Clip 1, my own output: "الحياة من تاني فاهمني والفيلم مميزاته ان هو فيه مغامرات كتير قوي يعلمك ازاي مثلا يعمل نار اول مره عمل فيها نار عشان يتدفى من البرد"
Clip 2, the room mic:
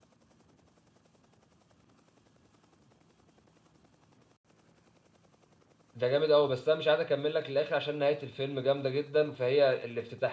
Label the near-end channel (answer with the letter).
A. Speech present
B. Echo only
A